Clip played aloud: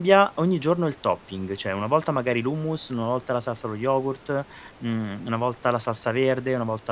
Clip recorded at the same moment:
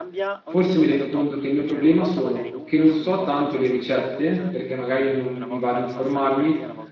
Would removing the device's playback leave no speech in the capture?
No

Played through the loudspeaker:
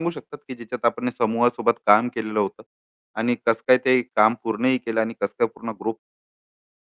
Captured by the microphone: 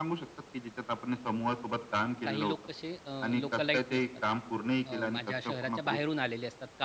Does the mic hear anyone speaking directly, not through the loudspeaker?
Yes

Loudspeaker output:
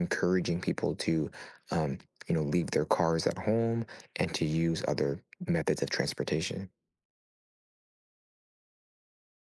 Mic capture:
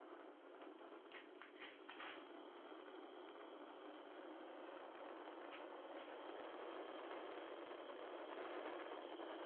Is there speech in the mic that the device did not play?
No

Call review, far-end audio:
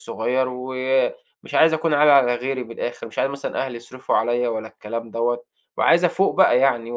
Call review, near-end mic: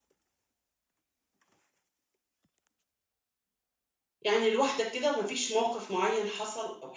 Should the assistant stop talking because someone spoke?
Yes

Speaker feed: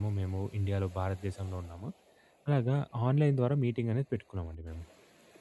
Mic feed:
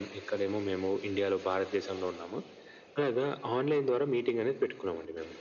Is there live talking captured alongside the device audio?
No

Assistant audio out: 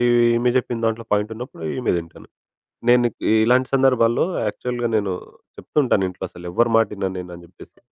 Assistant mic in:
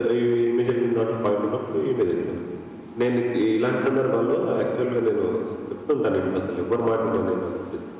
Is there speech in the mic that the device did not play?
No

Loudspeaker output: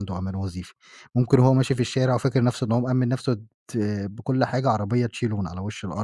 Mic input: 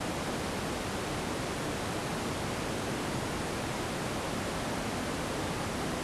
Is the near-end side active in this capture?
No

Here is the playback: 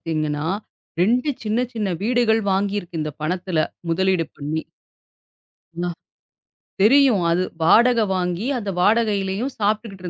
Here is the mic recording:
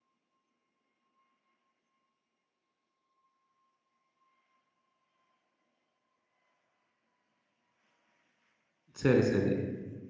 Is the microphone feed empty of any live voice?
No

